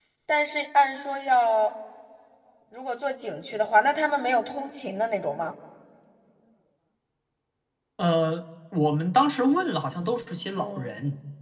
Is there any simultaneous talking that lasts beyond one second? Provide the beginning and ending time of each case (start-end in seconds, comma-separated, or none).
none